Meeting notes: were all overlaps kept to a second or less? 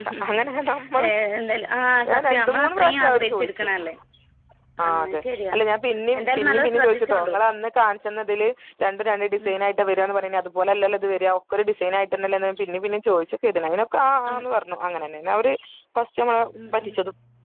No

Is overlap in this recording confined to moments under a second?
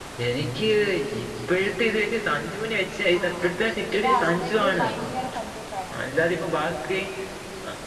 No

